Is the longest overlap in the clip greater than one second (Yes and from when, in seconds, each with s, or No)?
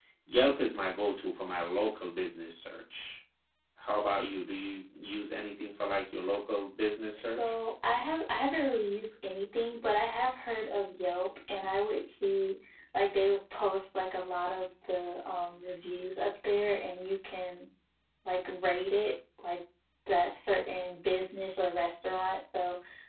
No